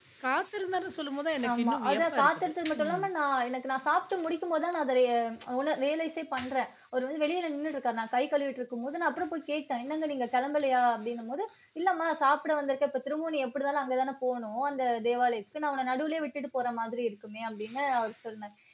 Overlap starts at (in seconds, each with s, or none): 1.4 s